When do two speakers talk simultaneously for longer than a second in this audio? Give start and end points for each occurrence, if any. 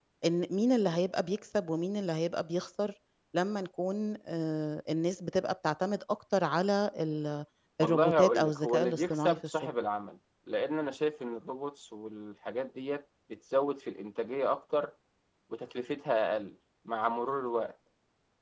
7.8-9.7

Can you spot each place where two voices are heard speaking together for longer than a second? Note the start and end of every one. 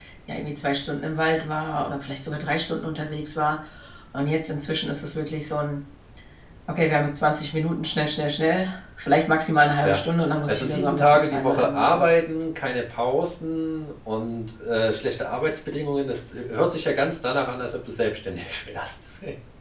10.5-12.2

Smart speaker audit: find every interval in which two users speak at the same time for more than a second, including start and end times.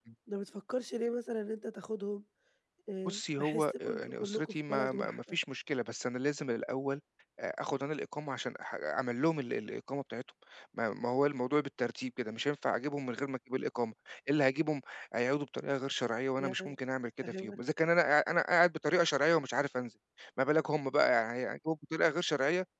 3.0-5.4

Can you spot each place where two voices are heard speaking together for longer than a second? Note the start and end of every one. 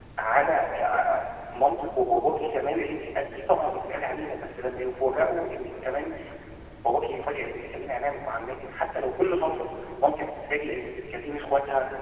none

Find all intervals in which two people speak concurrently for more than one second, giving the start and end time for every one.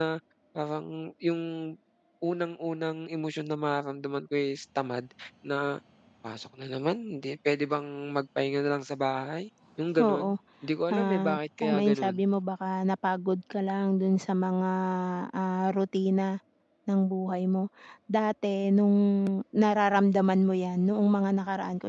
10.9-12.2

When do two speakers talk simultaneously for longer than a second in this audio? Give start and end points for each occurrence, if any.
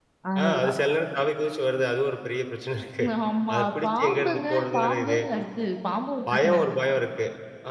3.5-5.2

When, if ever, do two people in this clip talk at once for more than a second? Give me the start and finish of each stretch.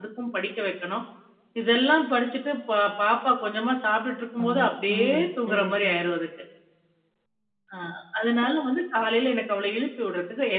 4.4-6.0

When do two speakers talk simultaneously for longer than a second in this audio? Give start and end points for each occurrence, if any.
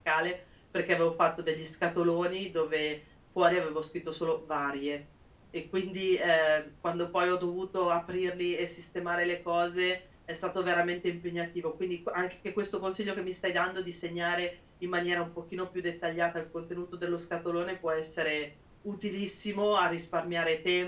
none

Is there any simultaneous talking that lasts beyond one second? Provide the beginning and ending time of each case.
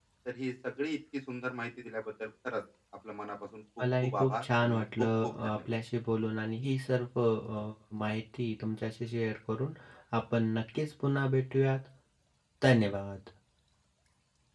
4.0-5.6

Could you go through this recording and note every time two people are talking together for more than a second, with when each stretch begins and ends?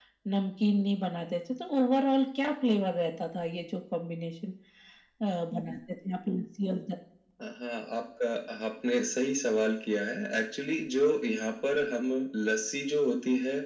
none

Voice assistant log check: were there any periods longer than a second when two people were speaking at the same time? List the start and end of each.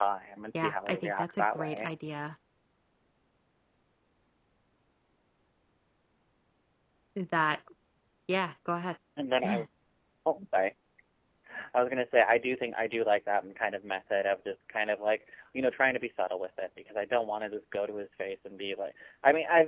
0.5-1.9

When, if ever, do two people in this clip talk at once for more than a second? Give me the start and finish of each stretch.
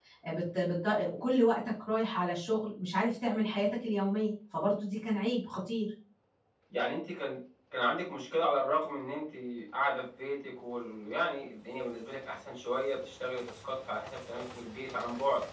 none

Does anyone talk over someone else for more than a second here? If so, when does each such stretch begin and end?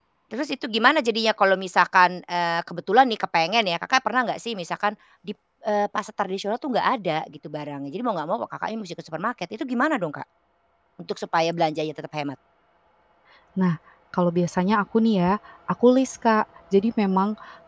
none

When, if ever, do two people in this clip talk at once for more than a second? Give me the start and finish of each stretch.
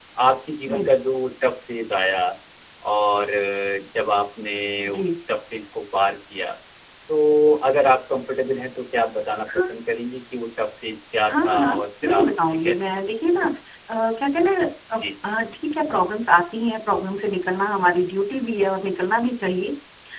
11.3-13.0

